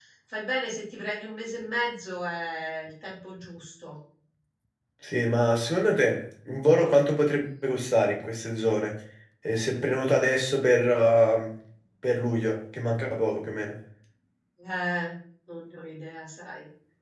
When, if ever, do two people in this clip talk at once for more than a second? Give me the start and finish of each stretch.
none

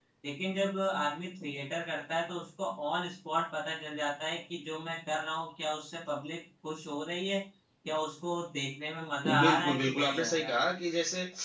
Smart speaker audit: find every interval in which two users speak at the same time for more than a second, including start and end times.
9.3-10.5

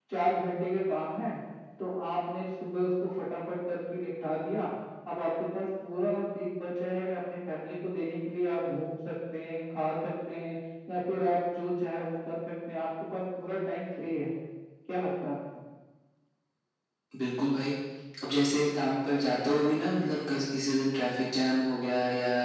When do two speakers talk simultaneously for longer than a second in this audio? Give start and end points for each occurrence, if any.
none

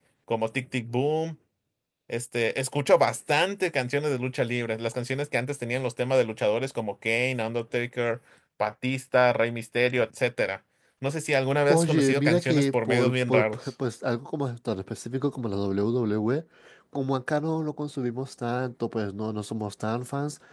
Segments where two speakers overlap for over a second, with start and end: 11.7-13.6

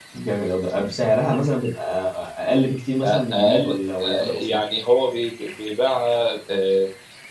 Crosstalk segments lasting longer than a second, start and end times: 3.0-4.6

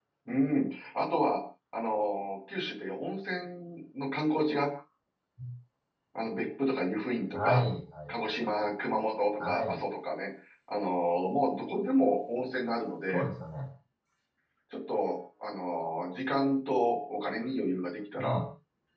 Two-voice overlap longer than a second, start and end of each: none

